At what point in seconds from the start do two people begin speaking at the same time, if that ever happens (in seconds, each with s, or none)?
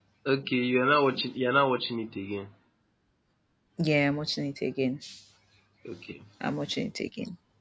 none